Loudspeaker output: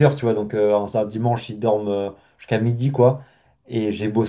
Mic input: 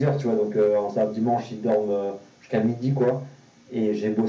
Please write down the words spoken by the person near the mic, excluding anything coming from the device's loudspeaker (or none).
none